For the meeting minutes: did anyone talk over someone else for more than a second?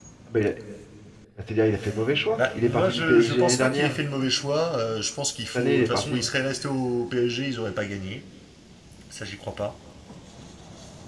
Yes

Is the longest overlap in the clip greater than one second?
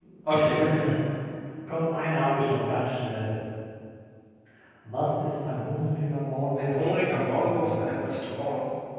Yes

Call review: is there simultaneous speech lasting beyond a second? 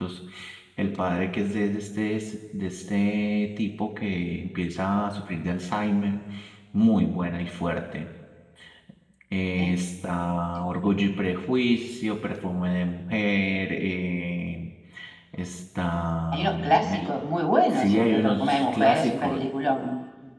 Yes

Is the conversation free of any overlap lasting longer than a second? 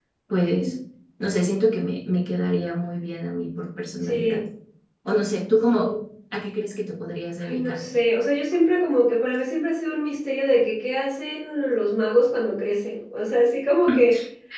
Yes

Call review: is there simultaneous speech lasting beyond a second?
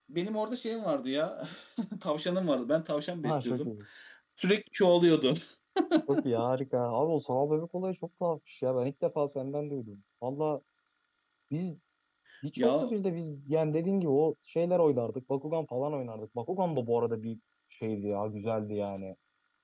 No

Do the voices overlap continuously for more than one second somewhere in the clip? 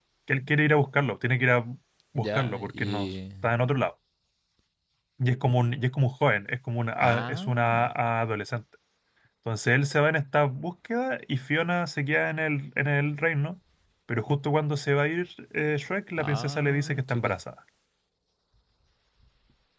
Yes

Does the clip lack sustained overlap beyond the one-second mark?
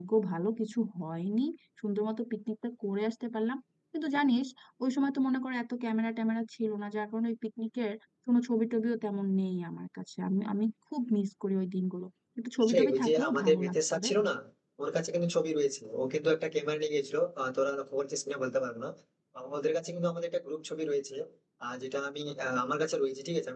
No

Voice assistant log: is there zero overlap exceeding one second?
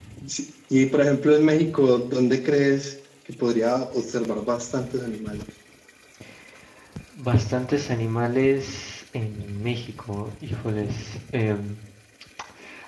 Yes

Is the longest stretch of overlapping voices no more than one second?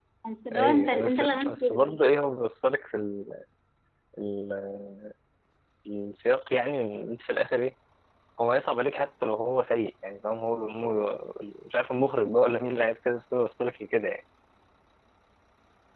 No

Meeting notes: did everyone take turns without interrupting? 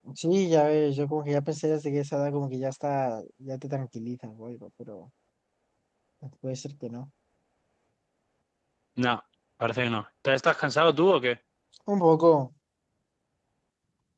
Yes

